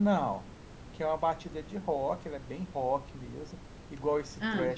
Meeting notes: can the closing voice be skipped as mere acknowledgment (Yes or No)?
Yes